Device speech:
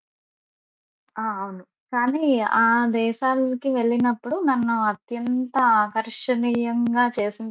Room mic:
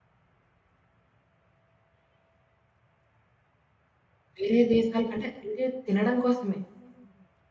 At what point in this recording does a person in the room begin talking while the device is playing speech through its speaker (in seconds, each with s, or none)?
4.4 s